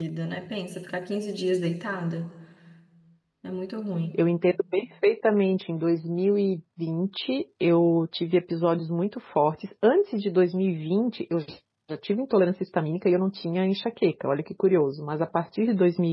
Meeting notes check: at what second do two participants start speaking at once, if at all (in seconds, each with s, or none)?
none